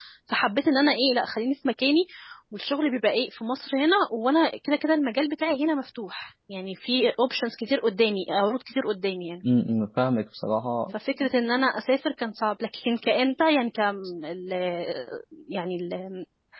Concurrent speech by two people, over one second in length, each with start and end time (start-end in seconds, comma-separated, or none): none